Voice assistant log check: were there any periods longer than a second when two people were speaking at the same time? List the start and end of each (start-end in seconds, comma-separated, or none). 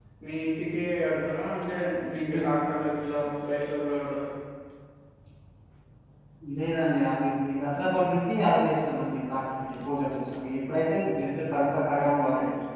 none